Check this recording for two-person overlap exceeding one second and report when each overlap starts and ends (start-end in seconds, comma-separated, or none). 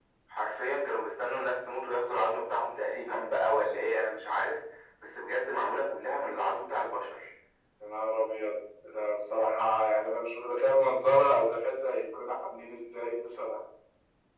none